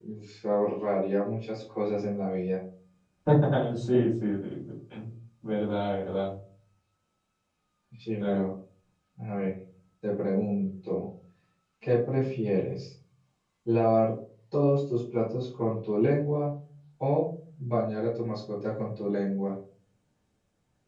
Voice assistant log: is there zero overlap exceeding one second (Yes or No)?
Yes